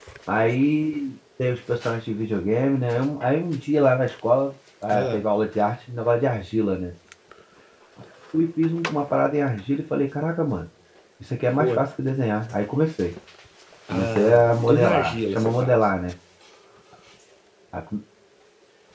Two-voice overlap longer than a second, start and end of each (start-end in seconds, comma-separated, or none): 13.9-15.8